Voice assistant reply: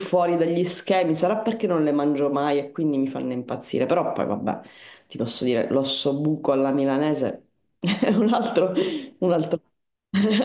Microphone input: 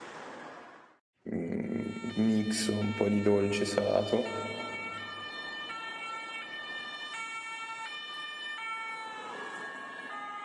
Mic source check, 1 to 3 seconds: user only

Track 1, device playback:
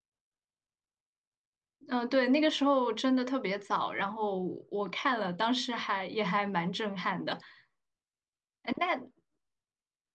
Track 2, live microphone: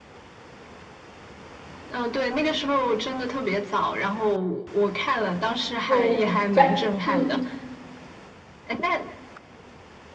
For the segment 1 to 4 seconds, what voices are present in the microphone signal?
echo only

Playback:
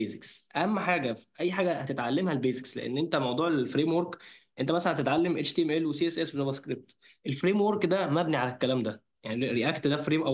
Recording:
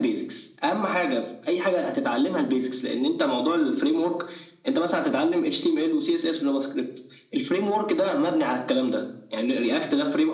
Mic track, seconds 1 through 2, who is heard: echo only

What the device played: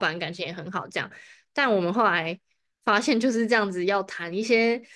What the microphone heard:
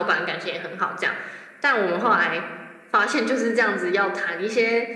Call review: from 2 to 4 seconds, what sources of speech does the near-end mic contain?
echo only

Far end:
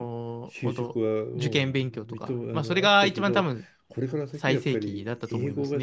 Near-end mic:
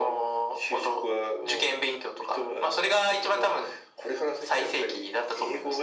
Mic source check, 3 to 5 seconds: echo only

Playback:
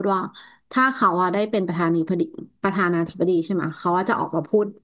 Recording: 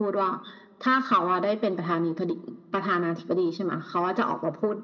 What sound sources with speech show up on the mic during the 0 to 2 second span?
echo only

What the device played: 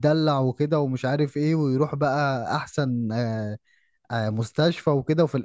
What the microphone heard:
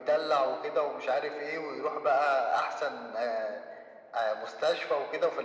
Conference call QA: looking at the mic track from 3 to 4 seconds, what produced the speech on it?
echo only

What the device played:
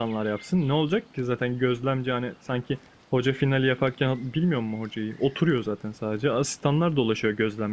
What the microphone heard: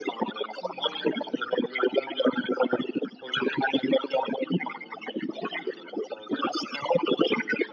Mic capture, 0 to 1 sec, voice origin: echo only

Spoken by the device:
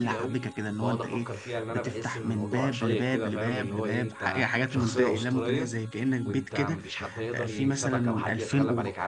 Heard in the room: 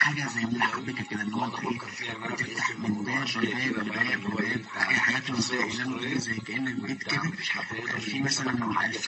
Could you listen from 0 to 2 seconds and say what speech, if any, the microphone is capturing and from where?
echo only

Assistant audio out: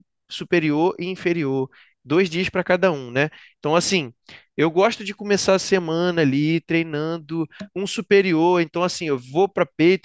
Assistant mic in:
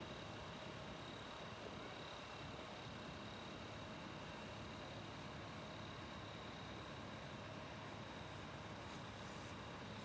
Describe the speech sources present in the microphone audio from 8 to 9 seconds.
neither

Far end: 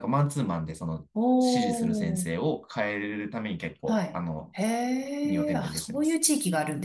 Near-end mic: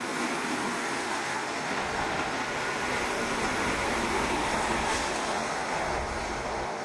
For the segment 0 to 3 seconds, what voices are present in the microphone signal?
neither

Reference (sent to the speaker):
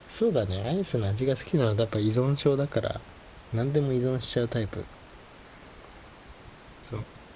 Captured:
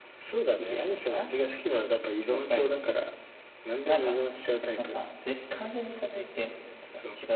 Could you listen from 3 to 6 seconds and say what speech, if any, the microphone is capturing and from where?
both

